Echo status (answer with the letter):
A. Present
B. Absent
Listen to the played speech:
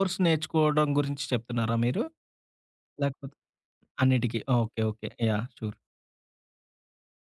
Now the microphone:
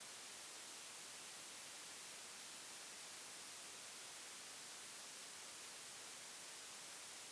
B